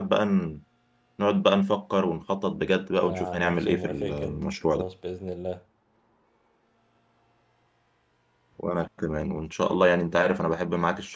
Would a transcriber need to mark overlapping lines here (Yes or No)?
Yes